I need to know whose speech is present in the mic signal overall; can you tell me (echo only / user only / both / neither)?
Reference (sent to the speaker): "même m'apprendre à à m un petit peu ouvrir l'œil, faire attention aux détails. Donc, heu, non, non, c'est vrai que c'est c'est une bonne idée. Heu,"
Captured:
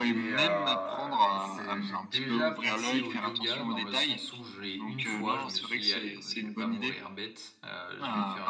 both